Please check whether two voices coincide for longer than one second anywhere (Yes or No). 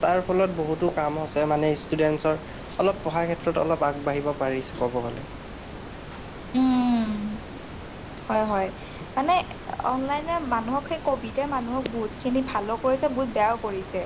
No